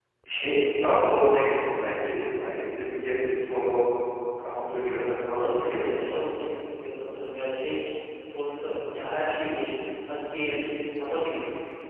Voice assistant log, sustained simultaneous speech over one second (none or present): none